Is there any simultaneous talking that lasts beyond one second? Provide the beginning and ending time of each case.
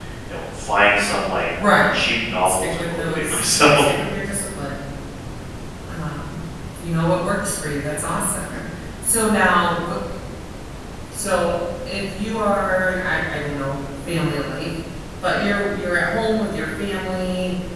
2.5-3.9

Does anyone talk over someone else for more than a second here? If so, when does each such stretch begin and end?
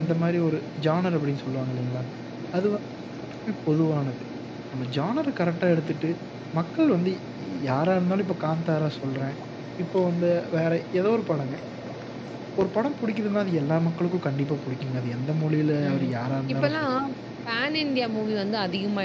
none

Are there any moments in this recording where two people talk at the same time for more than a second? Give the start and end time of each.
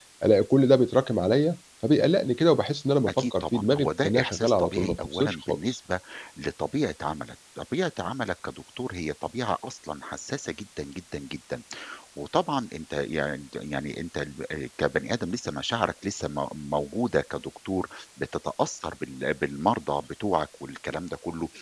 3.1-5.8

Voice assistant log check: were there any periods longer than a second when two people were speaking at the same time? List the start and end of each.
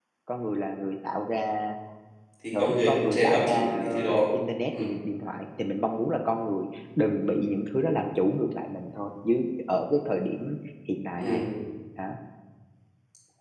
2.6-4.2

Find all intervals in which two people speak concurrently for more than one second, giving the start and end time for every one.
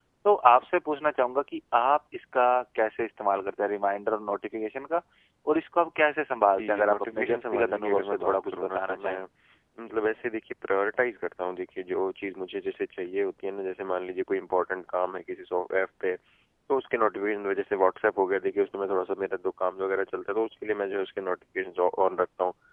6.5-9.2

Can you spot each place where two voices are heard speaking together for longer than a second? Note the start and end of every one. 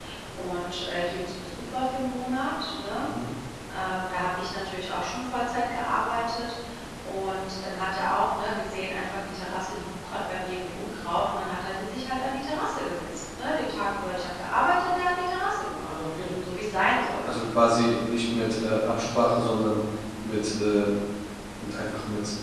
none

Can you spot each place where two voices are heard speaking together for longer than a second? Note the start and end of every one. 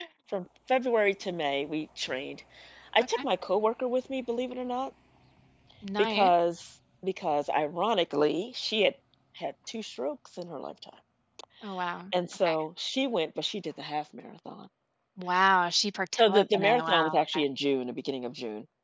16.2-17.4

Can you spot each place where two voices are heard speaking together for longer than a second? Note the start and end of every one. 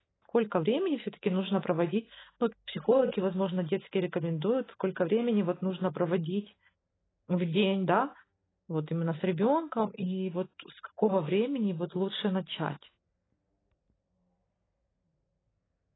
none

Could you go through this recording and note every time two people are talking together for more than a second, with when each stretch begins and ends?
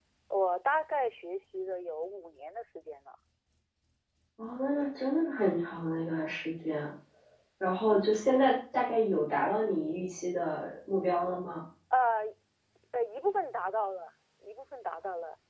none

